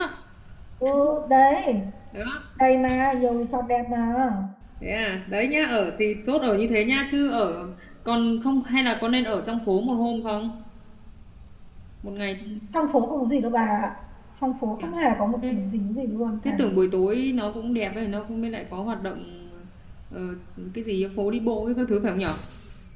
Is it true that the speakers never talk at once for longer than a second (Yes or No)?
Yes